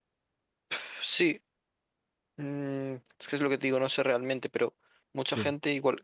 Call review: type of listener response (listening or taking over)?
listening